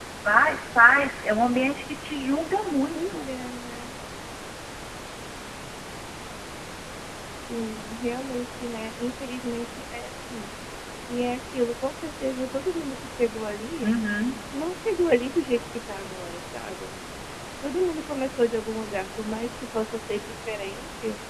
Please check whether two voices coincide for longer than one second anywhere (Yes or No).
No